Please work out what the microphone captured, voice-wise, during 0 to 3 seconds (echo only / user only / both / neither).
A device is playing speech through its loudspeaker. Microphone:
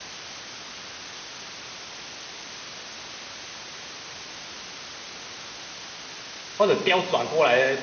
neither